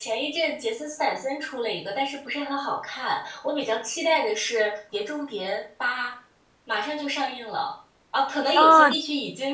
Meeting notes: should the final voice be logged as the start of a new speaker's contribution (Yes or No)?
No